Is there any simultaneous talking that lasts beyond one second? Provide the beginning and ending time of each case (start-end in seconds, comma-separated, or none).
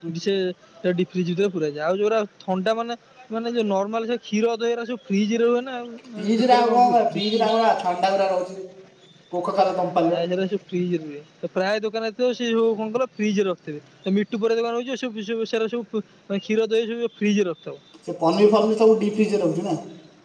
6.4-7.6